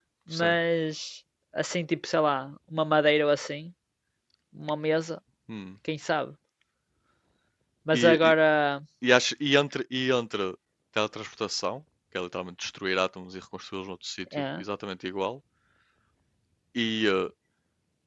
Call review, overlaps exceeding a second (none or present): none